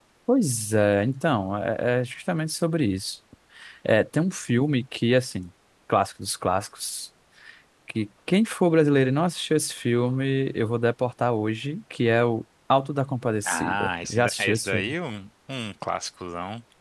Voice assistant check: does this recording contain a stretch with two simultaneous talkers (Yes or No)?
Yes